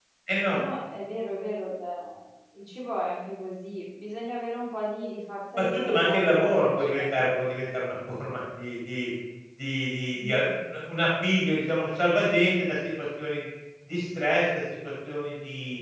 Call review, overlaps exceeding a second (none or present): present